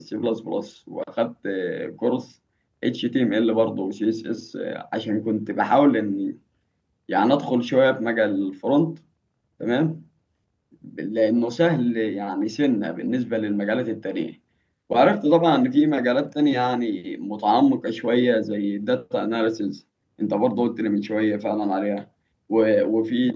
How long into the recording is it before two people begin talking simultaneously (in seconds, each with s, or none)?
none